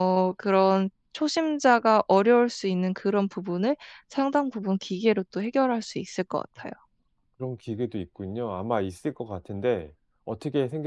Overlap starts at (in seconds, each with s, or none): none